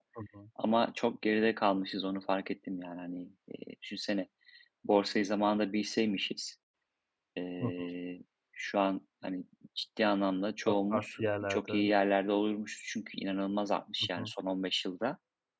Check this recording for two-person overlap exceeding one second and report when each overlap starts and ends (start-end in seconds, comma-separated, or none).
10.7-11.9